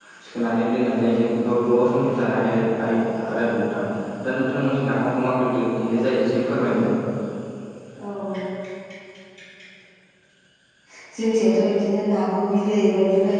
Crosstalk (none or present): none